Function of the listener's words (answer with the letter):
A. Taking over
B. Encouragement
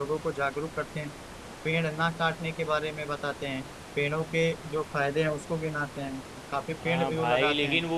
A